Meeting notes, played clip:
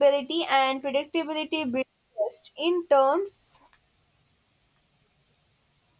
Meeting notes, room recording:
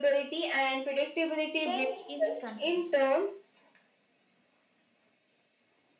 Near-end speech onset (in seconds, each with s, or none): 1.6 s